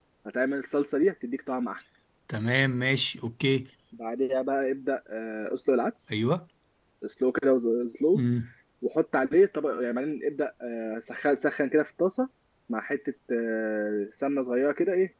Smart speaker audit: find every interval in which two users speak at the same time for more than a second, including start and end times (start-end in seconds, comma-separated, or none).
none